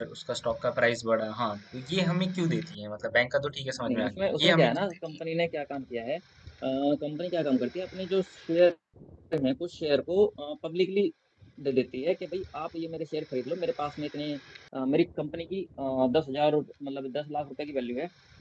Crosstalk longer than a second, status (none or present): present